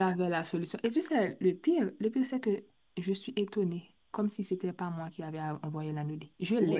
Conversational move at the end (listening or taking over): taking over